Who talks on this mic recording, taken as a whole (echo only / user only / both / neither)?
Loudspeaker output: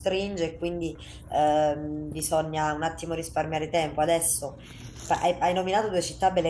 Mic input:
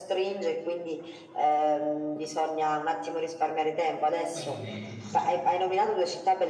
both